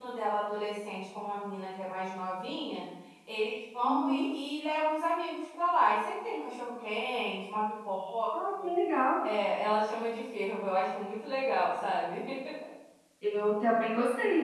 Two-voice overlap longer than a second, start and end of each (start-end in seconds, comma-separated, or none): none